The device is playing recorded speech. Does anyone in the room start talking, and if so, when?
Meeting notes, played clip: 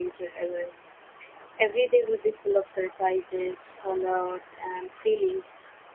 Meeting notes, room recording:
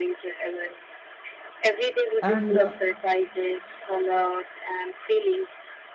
2.2 s

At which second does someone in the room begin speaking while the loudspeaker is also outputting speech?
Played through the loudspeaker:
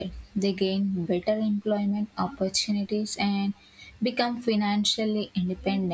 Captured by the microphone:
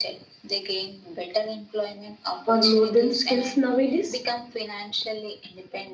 2.5 s

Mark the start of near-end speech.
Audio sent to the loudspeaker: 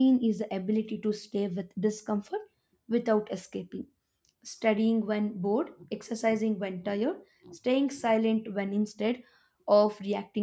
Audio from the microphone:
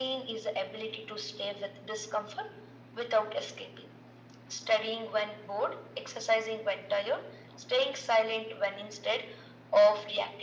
none

